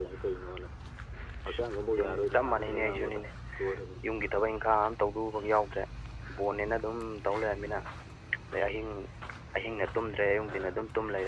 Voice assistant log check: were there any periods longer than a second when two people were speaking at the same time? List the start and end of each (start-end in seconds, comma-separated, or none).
1.9-3.2